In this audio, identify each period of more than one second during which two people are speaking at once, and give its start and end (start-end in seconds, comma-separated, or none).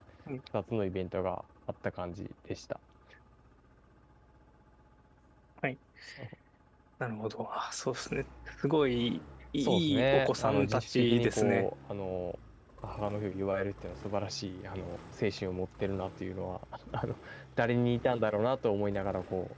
9.6-11.7